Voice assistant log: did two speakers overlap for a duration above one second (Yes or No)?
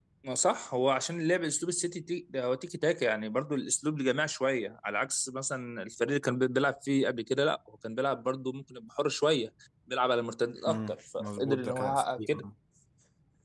Yes